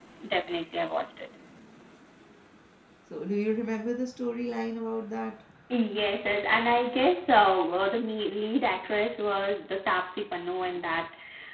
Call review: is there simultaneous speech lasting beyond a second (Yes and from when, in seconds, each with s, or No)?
No